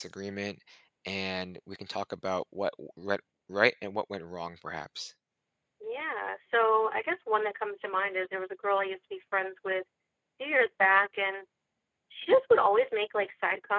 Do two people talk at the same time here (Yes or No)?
No